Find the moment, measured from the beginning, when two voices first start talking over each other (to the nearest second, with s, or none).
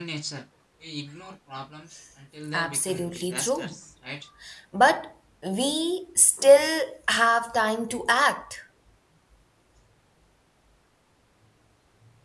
3 s